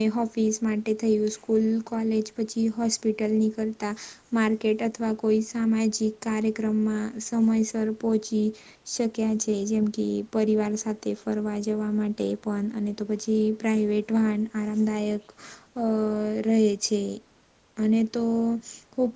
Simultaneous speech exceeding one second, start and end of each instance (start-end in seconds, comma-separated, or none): none